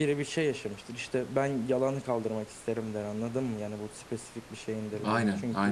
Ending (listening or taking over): listening